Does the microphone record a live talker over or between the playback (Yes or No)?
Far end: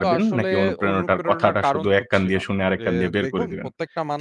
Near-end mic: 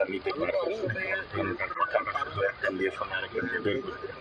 No